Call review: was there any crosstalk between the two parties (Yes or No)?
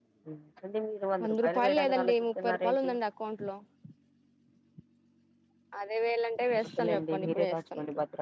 Yes